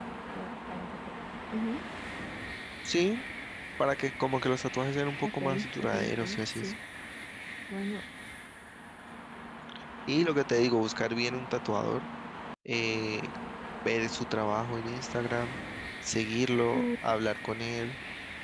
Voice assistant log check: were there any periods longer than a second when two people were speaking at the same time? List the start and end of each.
5.2-6.6

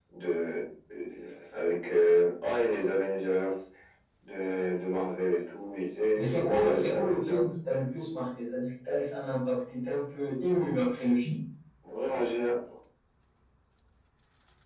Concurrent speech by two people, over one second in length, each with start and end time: 6.2-7.4

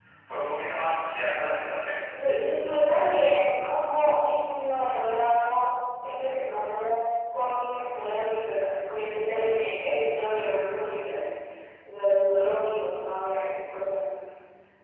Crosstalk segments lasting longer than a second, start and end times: none

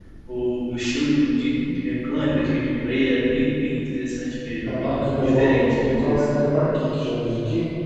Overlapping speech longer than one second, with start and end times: 4.6-6.3

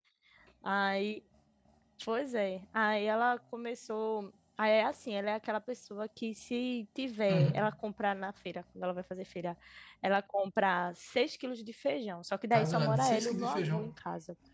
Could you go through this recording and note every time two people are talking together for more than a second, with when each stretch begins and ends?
12.5-13.9

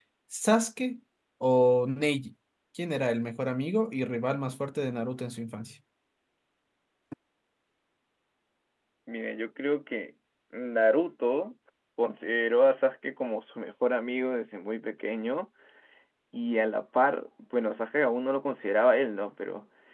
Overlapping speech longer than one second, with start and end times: none

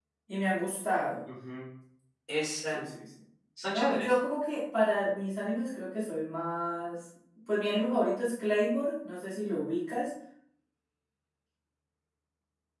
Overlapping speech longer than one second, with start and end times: none

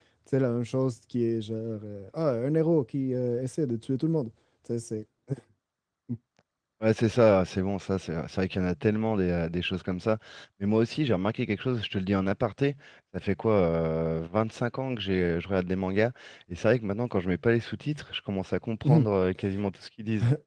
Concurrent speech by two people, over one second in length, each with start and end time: none

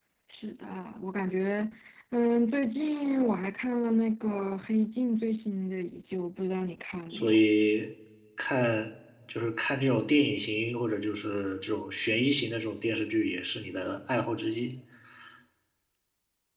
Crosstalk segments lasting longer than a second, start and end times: none

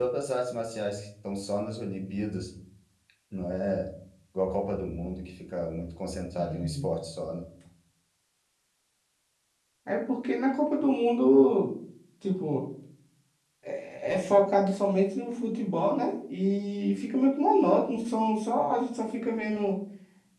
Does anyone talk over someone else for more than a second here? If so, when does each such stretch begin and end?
none

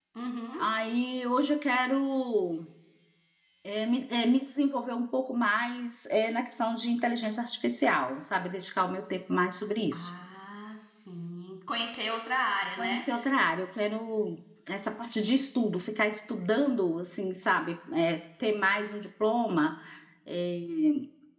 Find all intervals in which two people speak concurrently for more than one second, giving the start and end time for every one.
none

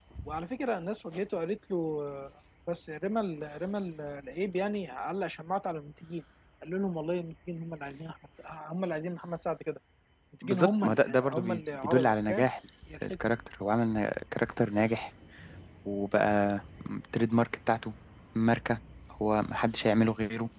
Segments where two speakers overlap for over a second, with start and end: 10.4-12.4

